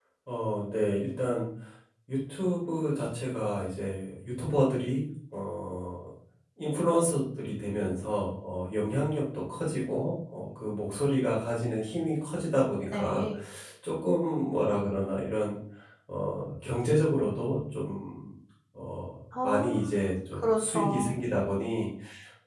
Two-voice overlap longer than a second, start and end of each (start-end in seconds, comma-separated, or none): 19.4-21.1